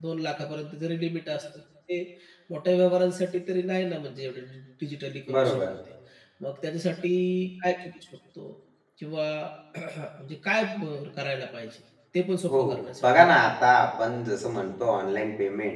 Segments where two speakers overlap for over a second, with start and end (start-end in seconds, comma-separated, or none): none